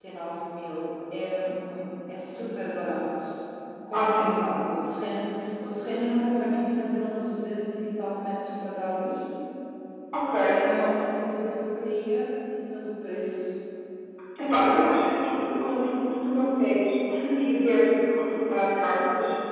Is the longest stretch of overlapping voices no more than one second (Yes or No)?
Yes